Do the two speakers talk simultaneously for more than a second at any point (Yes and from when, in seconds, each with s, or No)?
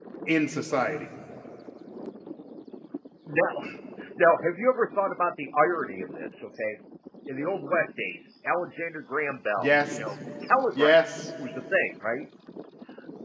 No